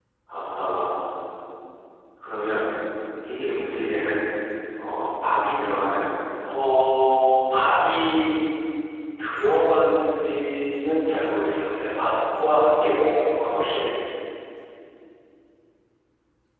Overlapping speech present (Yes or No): No